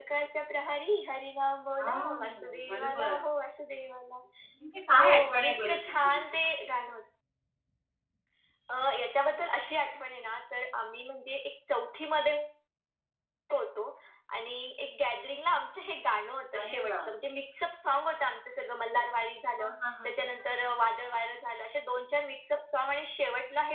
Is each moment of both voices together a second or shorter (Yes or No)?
No